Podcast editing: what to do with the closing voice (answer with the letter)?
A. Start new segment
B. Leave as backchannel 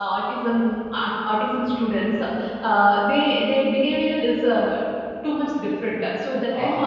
B